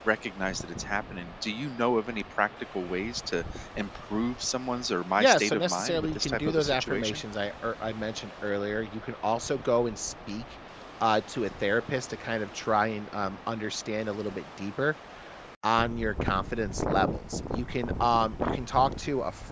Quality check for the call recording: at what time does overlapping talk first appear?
5.2 s

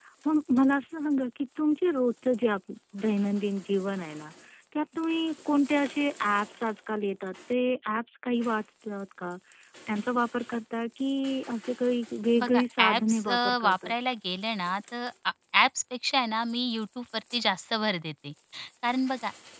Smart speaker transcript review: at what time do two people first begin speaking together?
12.3 s

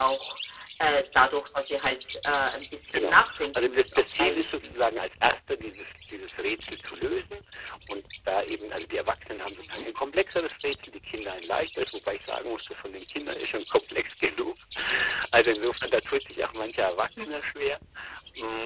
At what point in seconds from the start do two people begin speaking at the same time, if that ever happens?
2.9 s

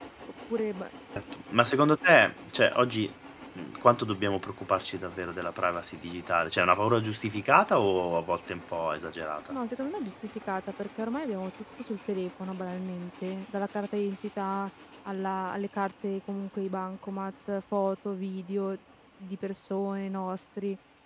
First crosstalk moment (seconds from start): none

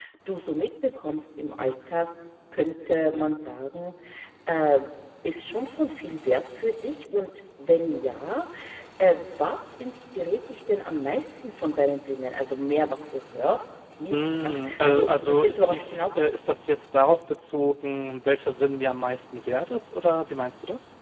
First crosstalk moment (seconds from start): 14.1 s

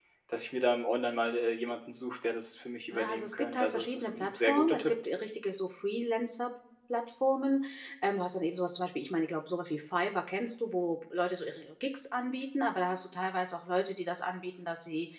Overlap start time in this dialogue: 2.9 s

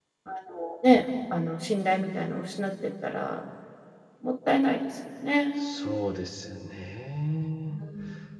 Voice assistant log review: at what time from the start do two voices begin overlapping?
none

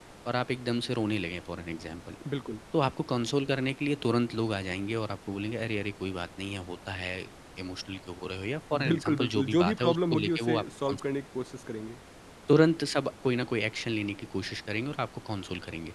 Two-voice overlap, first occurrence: 8.7 s

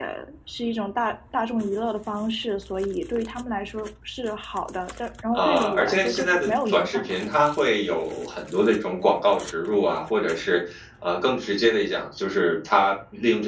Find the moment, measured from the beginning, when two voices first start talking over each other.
5.3 s

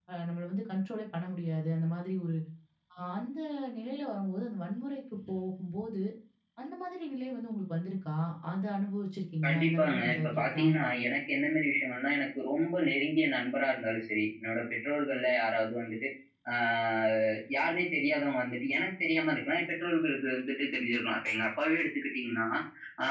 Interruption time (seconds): 9.4 s

